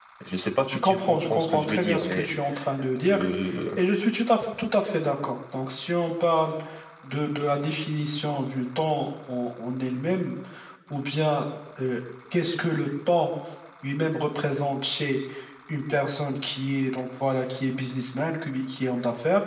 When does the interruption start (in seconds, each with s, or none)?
0.7 s